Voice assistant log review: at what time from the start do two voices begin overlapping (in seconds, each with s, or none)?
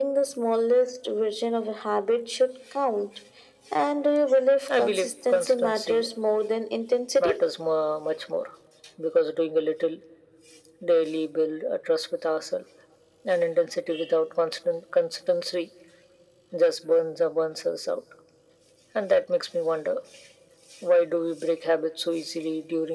4.7 s